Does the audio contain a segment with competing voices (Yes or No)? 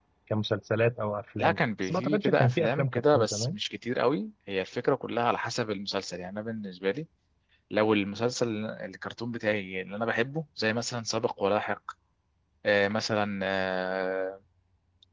Yes